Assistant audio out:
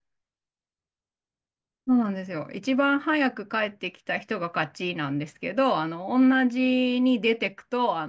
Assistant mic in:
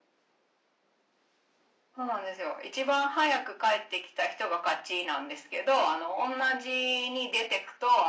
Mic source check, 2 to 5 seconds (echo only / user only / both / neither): echo only